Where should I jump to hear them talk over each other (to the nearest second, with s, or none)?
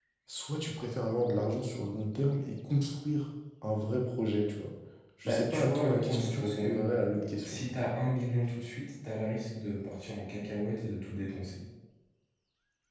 5 s